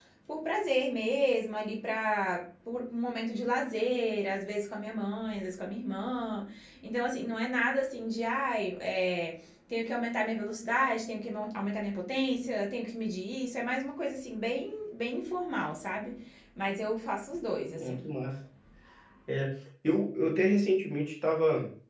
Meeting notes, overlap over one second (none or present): none